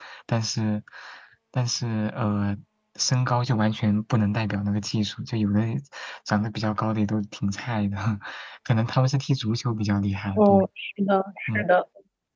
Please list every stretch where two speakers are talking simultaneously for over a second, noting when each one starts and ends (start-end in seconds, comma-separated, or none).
none